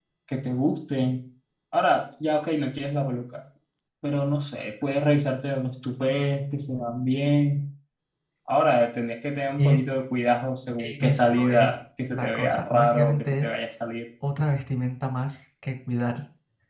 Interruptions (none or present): present